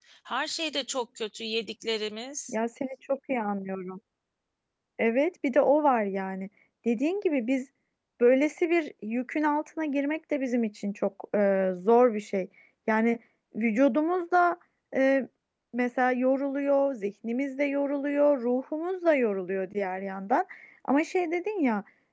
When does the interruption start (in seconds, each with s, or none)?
none